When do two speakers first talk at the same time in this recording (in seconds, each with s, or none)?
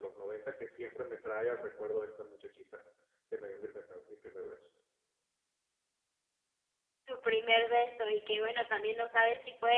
none